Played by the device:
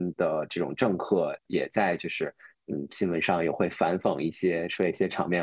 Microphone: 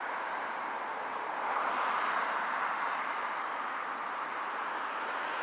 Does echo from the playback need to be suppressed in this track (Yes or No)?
No